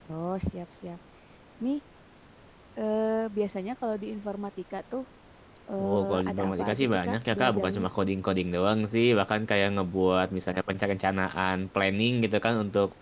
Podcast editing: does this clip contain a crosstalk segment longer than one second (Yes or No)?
Yes